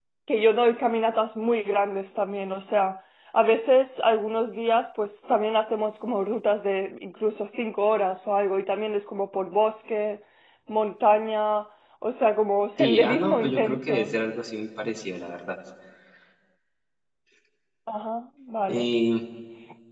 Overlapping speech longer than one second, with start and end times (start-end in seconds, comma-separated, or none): 12.8-14.1